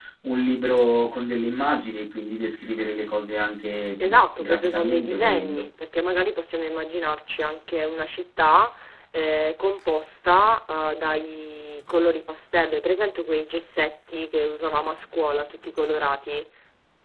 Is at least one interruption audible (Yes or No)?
Yes